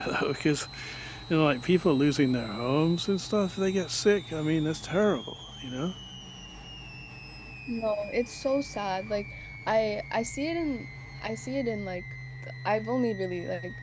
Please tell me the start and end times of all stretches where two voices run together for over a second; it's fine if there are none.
none

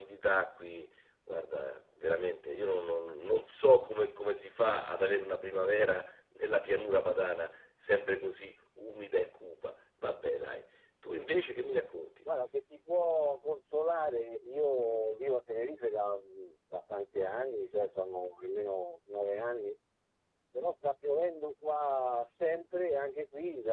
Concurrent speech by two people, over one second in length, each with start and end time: none

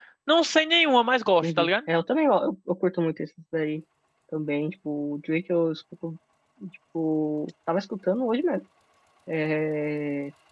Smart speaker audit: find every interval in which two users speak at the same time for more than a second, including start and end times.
none

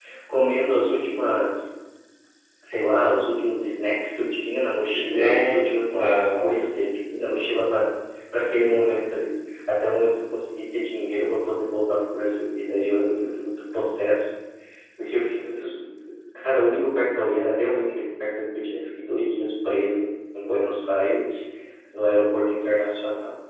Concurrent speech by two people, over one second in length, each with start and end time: 4.9-6.6

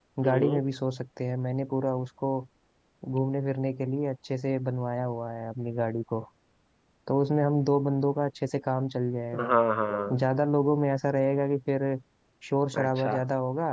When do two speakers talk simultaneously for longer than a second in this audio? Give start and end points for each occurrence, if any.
none

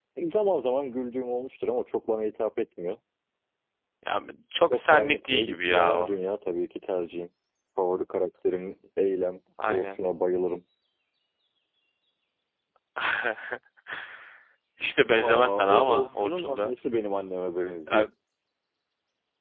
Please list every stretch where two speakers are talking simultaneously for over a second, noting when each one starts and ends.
4.7-6.1, 15.1-16.8

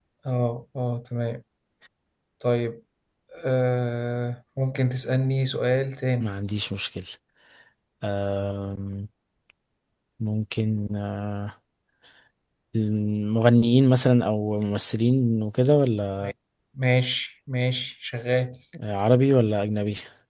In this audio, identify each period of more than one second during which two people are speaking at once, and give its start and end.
none

